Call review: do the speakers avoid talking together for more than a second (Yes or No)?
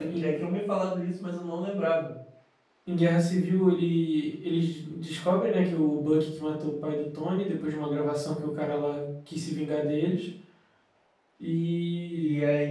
Yes